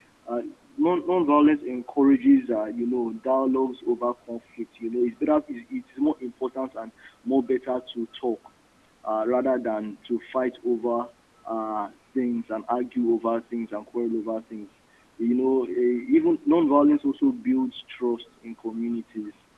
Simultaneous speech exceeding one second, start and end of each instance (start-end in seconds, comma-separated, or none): none